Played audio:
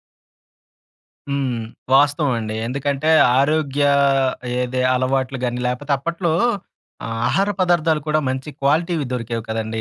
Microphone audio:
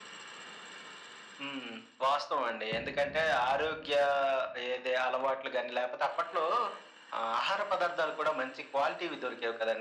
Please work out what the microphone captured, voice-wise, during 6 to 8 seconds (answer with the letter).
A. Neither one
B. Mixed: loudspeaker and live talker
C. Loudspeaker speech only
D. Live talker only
C